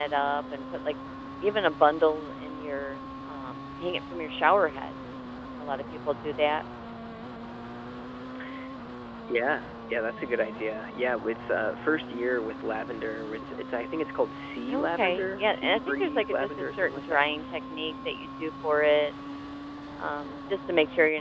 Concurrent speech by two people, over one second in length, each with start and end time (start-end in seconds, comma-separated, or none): 14.7-17.3